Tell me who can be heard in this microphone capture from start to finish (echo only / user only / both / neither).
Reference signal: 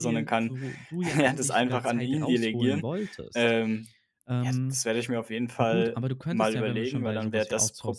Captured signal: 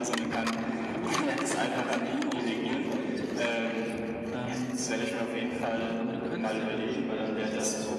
echo only